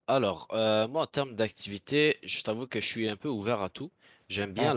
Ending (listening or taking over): listening